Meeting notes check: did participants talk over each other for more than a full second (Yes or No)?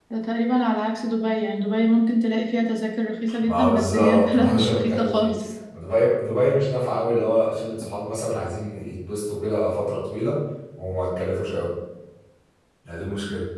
Yes